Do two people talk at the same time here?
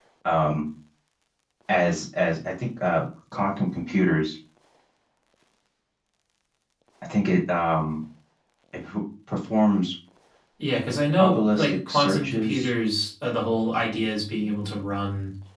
Yes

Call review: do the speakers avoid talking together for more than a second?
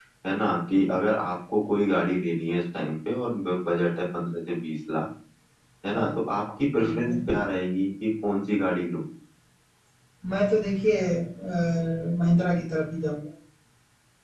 Yes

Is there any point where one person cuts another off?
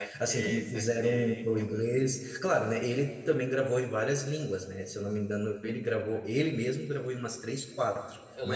Yes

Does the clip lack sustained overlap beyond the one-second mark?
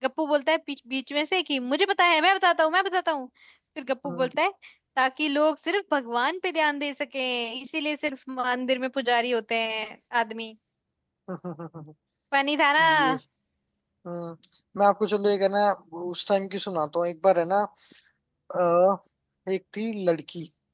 Yes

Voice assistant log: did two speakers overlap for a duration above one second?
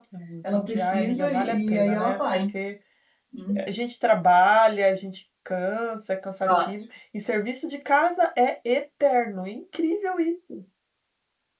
Yes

